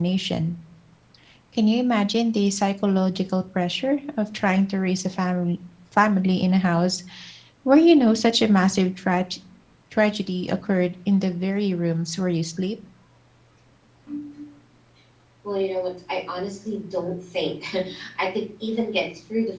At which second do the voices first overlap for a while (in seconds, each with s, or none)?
none